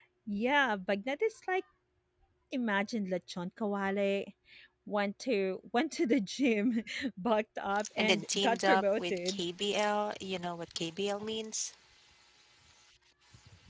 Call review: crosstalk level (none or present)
present